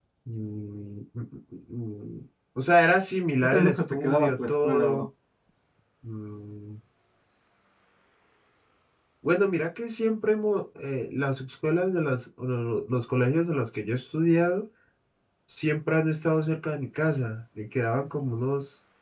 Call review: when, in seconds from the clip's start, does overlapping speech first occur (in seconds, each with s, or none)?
3.4 s